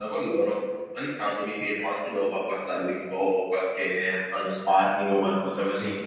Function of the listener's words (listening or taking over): listening